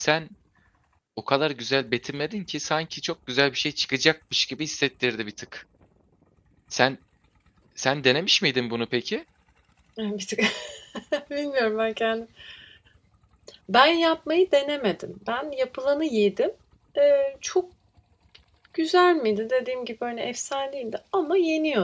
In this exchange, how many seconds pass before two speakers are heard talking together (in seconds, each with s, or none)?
none